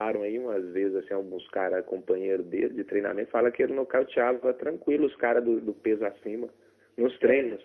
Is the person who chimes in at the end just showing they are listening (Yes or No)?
No